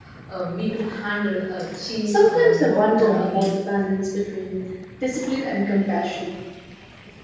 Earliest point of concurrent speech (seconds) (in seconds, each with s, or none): 2.0 s